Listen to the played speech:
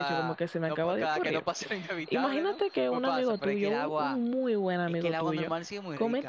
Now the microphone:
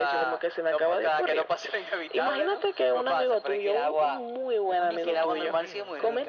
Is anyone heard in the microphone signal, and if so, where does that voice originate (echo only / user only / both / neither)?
both